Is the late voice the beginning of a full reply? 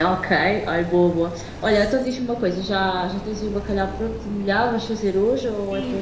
Yes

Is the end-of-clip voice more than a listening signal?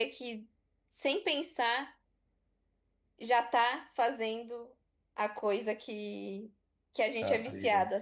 No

